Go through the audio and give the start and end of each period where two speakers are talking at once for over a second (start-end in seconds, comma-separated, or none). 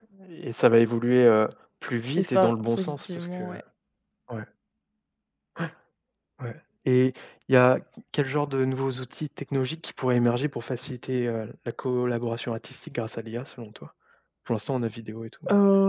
2.2-3.6